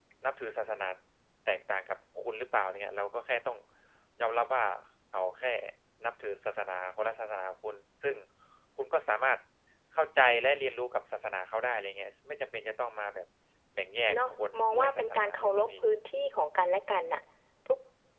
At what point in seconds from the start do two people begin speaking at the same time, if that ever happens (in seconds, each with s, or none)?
14.1 s